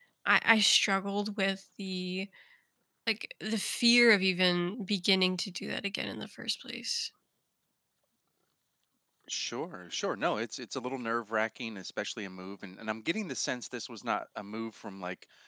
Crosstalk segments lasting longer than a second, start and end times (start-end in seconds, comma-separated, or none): none